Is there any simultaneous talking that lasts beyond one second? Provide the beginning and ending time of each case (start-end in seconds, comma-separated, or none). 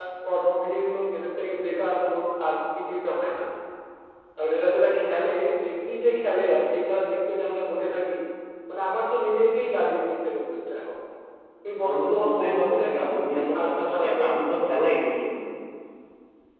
11.9-14.3